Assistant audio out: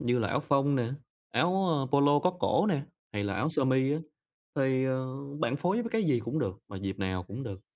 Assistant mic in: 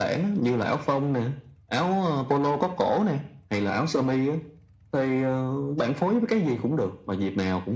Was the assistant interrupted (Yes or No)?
No